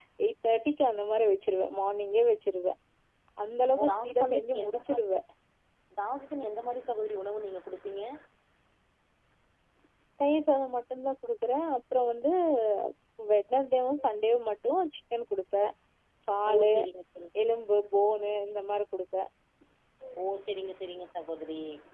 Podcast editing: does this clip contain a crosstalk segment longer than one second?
Yes, from 3.8 s

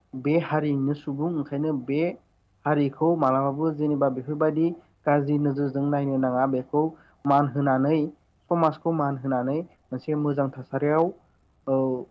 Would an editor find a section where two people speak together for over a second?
No

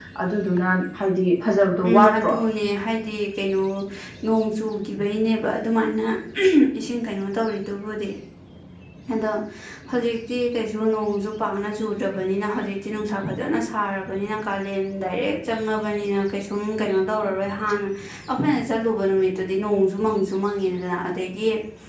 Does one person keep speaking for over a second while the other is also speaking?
No

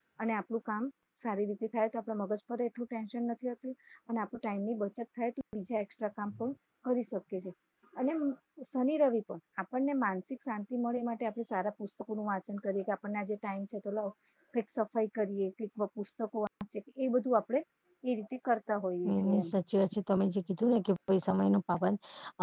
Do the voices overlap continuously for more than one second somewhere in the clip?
No

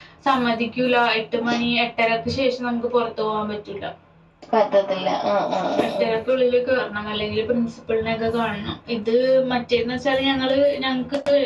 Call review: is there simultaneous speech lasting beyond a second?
No

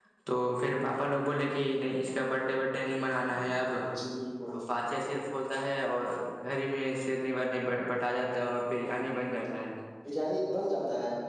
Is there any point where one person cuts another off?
No

